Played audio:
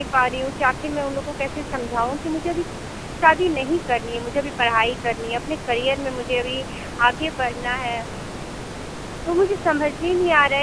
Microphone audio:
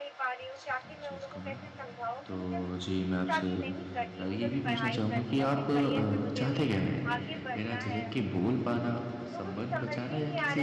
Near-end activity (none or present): present